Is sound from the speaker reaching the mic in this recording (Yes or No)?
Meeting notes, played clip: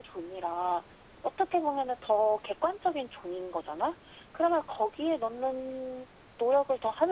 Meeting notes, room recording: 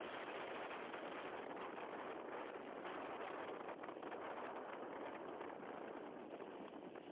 No